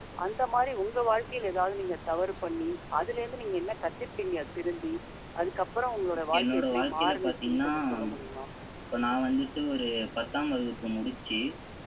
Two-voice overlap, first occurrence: 6 s

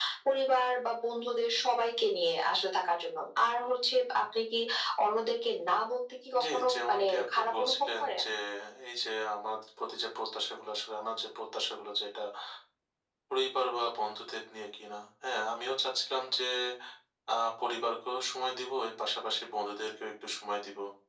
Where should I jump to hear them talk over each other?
6 s

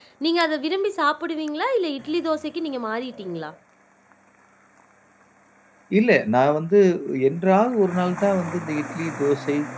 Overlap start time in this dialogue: none

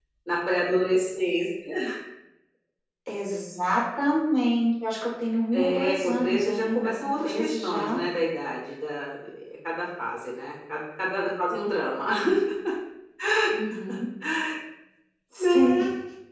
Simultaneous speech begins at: 6 s

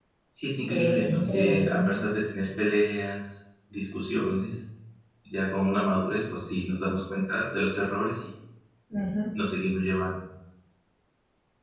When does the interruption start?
1 s

